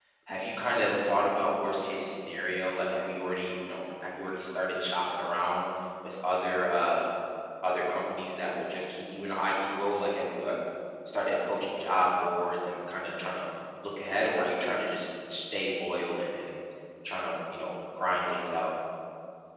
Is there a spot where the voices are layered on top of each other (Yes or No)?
No